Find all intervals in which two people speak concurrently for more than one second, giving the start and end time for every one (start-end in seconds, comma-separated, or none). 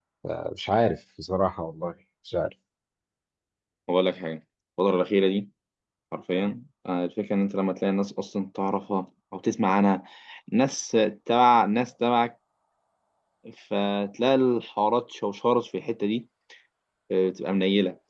none